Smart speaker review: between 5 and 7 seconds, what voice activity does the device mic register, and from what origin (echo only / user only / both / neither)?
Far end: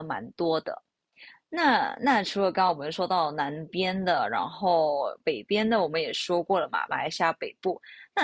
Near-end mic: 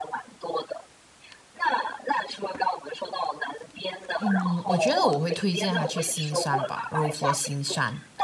both